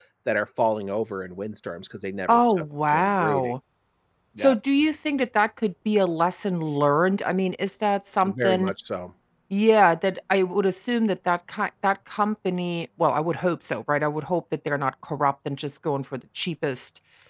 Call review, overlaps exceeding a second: present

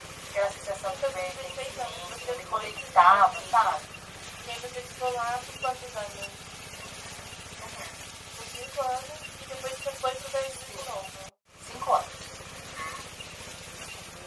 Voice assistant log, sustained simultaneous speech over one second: present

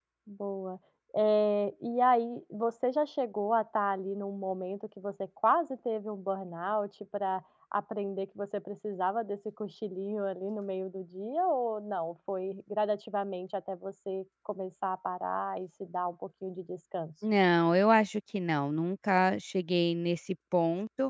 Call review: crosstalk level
none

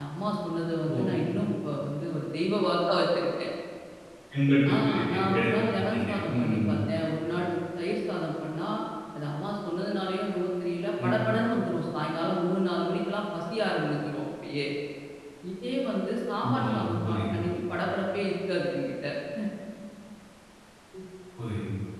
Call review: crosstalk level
present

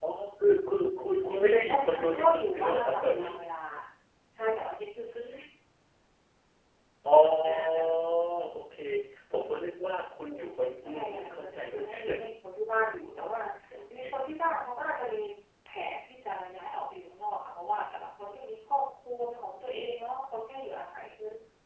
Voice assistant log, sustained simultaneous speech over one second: present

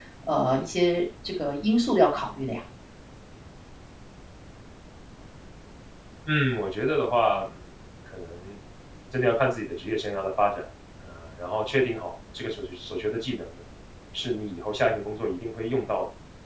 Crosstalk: none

